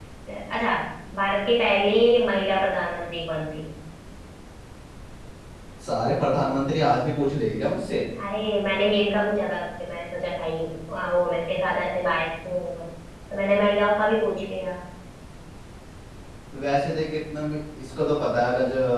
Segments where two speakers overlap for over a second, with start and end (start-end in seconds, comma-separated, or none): none